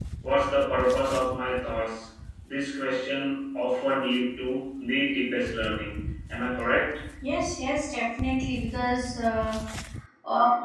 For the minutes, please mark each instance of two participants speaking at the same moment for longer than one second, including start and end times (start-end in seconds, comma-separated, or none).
none